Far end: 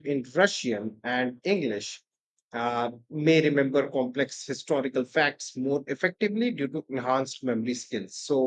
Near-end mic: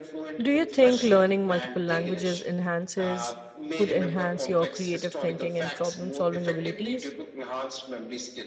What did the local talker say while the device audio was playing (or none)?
Do you think learning multiple languages enhances could enhance your creative thinking and problem solving abilities?